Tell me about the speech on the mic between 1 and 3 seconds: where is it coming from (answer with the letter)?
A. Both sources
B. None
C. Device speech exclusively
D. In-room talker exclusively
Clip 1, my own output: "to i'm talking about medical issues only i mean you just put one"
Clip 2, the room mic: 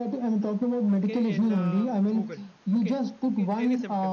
A